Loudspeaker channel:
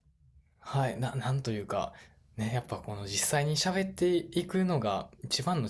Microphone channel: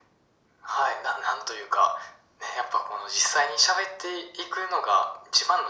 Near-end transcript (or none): none